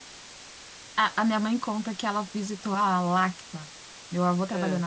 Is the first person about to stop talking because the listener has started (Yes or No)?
No